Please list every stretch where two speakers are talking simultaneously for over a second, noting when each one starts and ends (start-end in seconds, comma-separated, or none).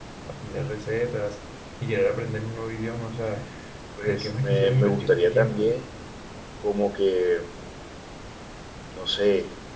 4.1-5.7